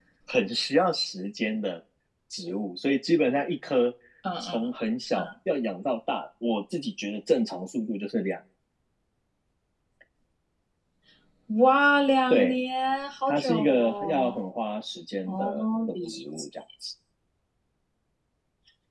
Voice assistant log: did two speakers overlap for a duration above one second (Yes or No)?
Yes